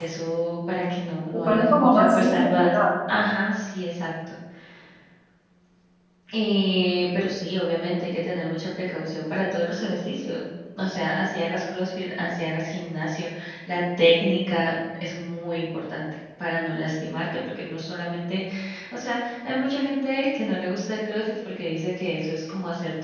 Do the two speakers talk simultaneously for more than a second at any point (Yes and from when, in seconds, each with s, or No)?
Yes, from 1.3 s